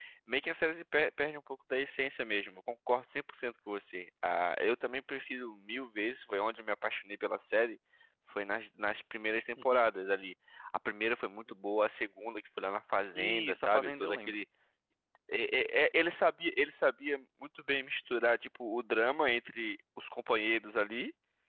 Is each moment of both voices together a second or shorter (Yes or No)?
No